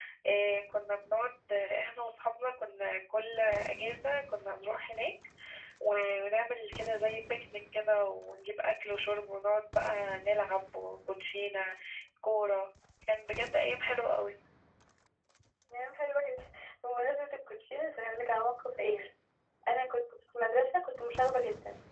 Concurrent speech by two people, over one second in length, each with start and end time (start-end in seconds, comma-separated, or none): none